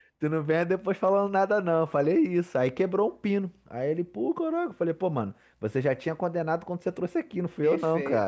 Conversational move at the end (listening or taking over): taking over